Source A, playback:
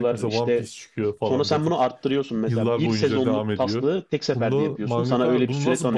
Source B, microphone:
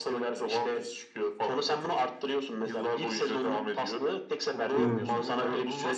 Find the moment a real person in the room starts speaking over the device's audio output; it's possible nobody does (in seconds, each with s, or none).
4.7 s